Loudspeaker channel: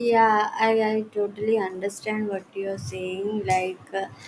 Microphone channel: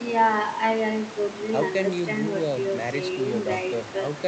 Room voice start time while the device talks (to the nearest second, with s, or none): 2 s